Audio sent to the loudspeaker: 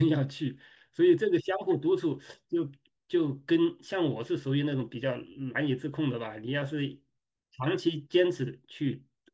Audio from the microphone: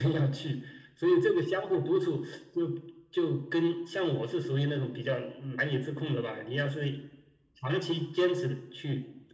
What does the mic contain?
echo only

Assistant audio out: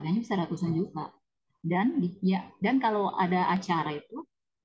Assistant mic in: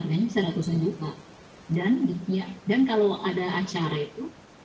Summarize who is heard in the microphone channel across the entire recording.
echo only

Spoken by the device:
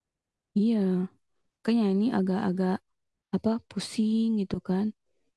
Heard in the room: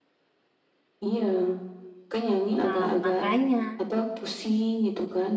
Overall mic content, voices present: both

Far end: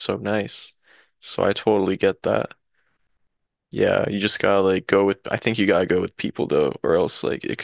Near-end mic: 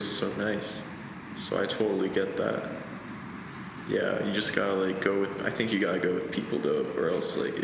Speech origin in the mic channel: echo only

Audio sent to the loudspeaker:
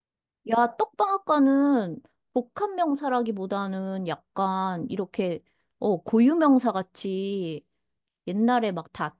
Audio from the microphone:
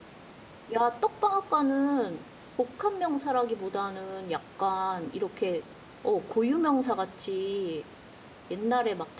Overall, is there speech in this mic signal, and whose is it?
echo only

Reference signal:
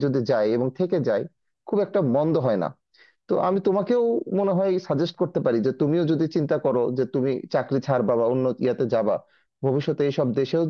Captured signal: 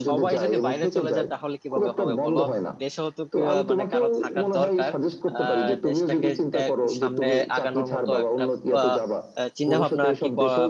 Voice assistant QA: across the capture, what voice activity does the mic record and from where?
both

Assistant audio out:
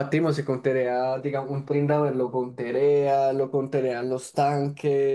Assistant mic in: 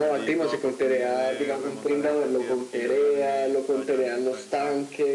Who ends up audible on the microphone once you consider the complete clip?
both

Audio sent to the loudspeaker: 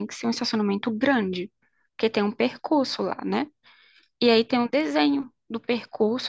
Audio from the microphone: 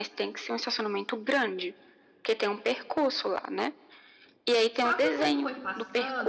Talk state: both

